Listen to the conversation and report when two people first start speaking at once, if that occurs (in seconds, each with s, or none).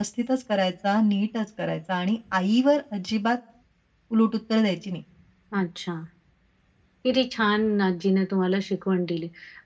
none